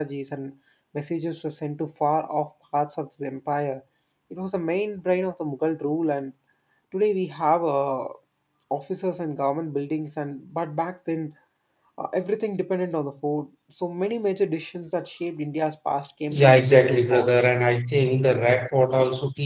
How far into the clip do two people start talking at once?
16.3 s

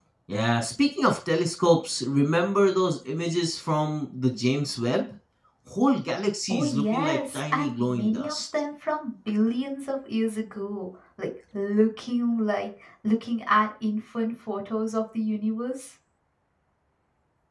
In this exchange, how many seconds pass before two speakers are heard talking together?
6.5 s

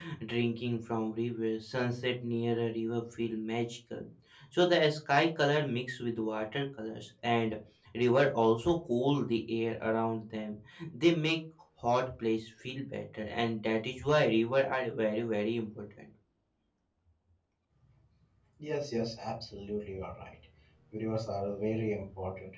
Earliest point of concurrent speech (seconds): none

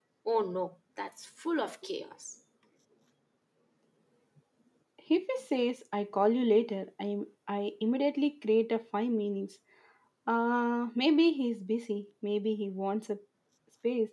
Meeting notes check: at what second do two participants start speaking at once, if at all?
none

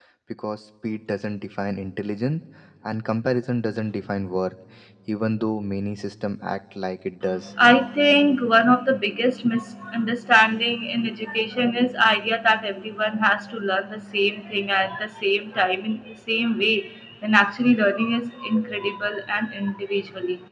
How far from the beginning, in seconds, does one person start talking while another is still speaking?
none

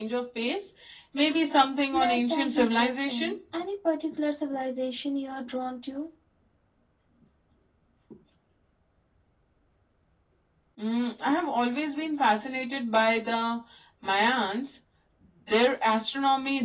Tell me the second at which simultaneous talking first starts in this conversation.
1.9 s

